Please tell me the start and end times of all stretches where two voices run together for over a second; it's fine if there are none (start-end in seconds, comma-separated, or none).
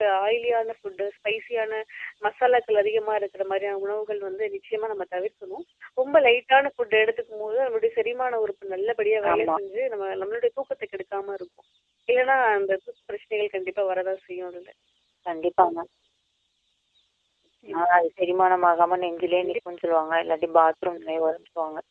none